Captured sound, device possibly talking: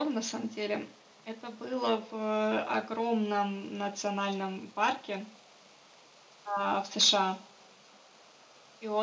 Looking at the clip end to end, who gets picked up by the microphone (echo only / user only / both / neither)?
echo only